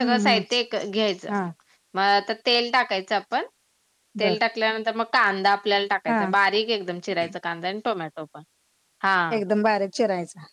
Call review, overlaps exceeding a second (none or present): none